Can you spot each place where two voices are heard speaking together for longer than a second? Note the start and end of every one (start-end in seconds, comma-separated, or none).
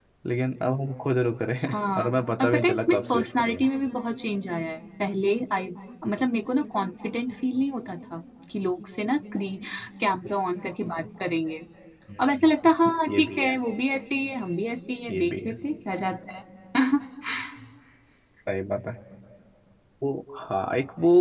2.4-3.7